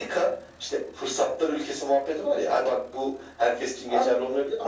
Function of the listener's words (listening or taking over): taking over